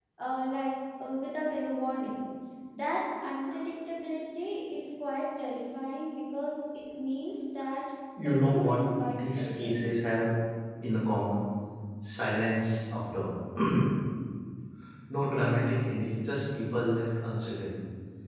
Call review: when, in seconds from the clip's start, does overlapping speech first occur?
8 s

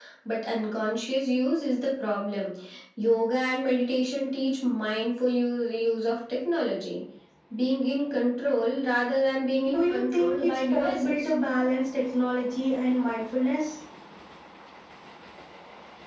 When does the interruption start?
10 s

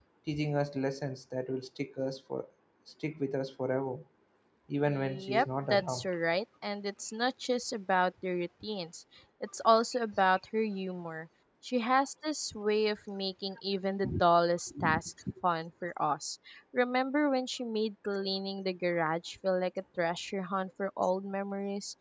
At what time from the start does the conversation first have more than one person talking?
5 s

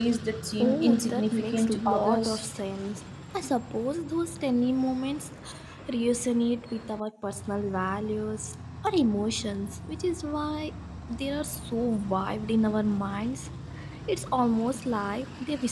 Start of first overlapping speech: 1 s

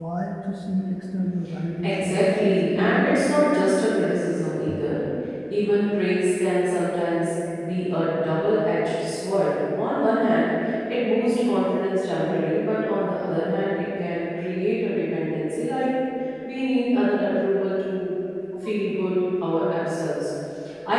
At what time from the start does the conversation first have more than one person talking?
2 s

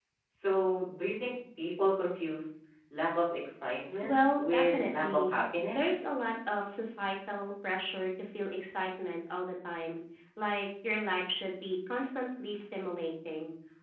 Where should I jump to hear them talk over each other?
4 s

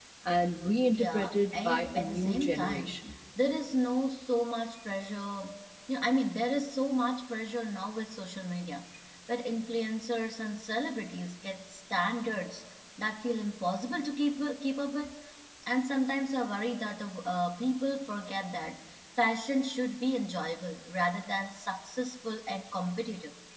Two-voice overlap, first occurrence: 1 s

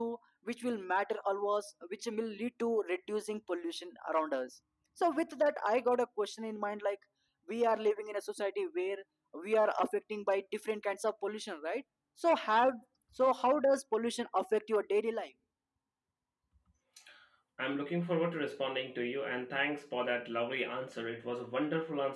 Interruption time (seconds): none

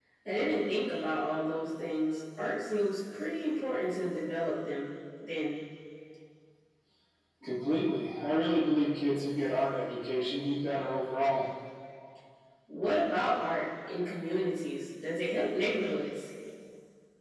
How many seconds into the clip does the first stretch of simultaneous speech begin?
none

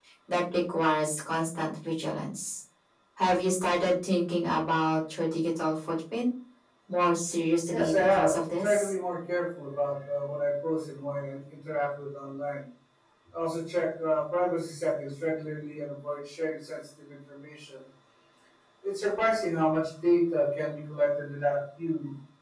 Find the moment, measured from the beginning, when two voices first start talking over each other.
8 s

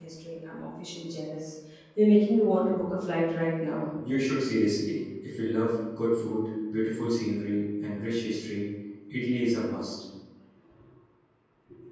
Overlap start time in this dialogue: none

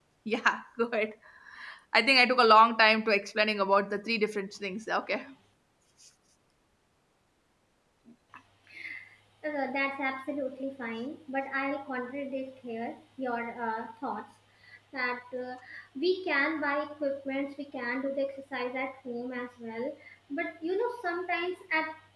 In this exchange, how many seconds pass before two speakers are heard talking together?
none

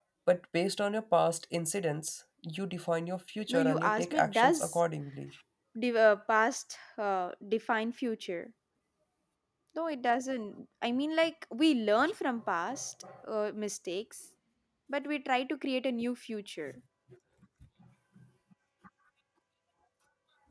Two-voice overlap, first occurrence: 3 s

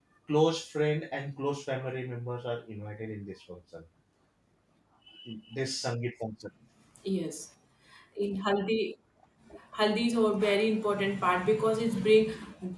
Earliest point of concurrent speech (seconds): none

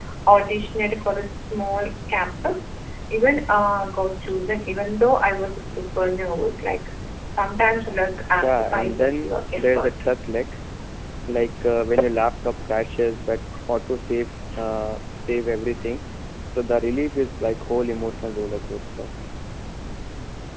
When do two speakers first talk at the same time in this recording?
8 s

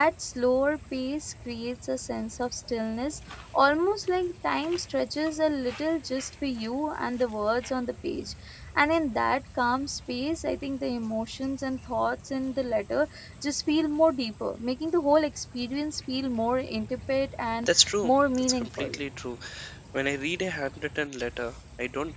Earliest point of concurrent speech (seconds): 18 s

